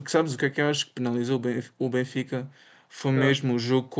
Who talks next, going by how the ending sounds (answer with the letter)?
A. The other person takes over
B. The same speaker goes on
B